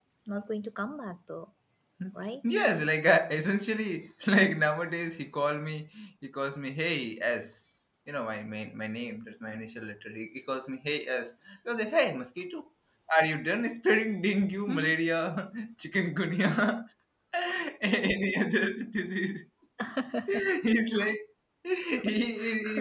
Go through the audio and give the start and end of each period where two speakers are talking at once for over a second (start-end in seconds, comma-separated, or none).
none